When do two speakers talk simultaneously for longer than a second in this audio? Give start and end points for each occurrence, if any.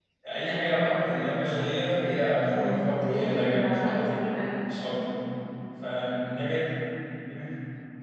2.5-4.2

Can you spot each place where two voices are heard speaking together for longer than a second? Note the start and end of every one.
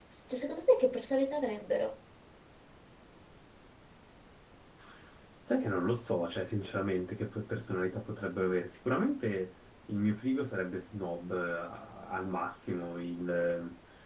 none

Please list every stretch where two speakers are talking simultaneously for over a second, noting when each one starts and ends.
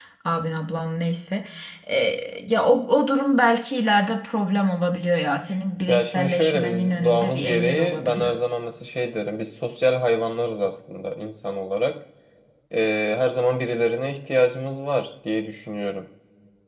5.9-8.3

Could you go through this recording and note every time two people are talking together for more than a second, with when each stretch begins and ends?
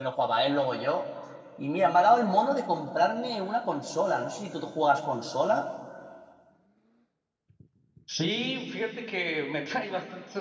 none

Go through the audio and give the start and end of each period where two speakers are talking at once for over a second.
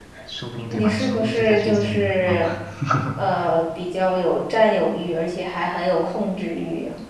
0.7-2.5

